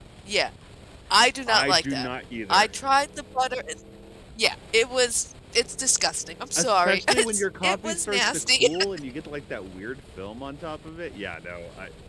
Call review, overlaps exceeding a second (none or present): present